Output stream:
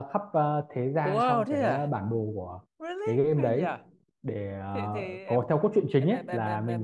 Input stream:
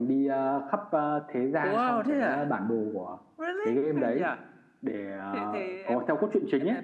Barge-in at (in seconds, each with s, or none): none